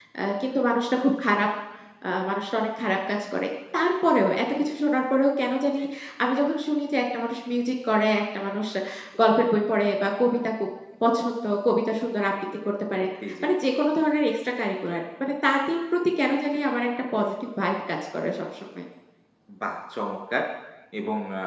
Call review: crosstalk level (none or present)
none